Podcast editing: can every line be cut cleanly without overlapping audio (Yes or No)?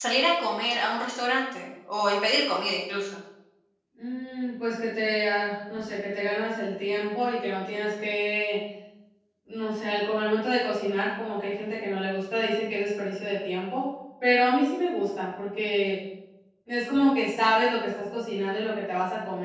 Yes